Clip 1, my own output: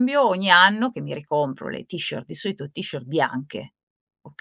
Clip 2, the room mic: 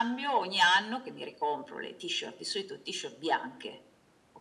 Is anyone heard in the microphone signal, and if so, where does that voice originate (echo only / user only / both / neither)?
echo only